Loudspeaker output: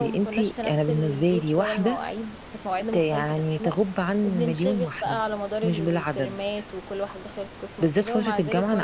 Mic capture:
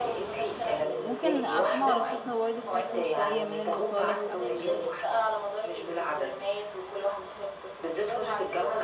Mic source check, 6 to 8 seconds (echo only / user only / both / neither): echo only